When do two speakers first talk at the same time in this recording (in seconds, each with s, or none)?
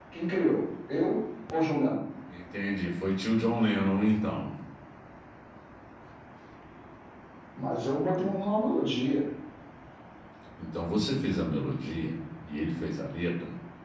none